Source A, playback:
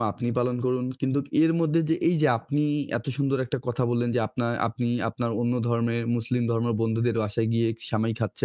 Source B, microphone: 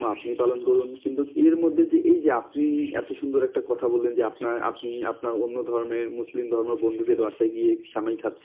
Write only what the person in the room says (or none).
none